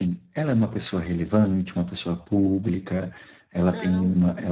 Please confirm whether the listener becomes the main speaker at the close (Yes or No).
No